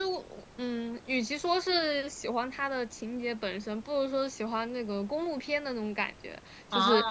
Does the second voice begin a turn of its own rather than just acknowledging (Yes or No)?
No